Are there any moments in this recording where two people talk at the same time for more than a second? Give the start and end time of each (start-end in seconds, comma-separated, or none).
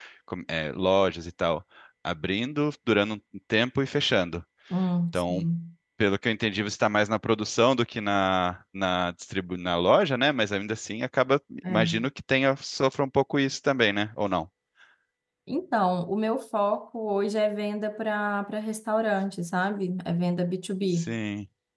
none